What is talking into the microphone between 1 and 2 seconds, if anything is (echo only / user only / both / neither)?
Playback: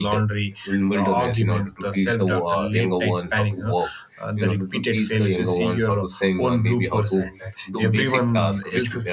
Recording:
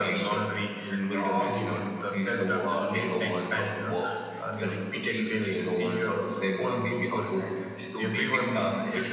echo only